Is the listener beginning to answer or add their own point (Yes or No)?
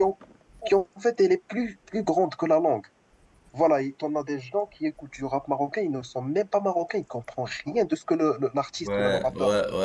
Yes